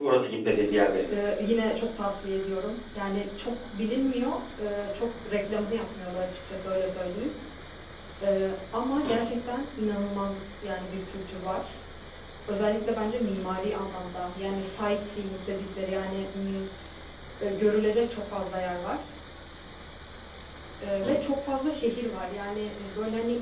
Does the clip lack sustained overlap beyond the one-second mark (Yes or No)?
Yes